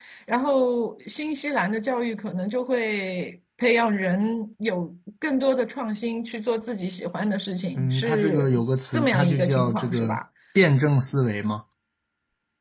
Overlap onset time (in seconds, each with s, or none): 7.7 s